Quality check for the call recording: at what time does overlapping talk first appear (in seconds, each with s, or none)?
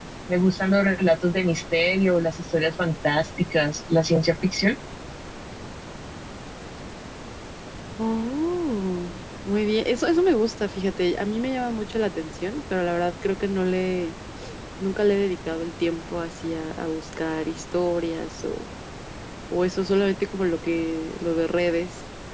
none